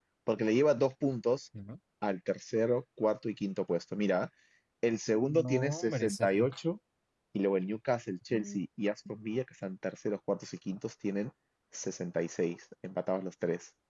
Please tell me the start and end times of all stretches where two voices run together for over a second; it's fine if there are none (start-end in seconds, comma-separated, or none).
5.2-6.5